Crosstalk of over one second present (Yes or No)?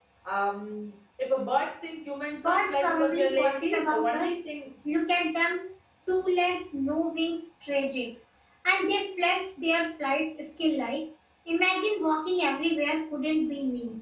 Yes